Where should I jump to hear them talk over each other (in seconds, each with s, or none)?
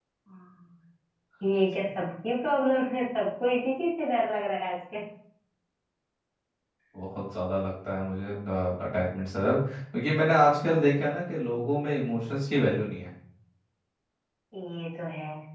none